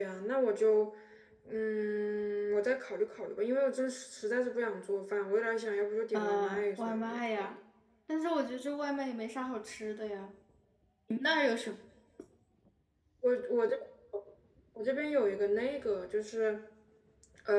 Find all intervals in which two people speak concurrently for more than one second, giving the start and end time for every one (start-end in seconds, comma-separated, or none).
6.1-7.6